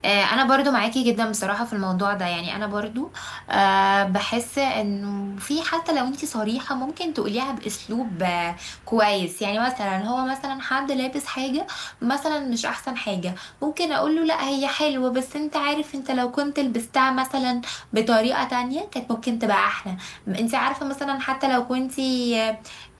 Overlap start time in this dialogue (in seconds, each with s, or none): none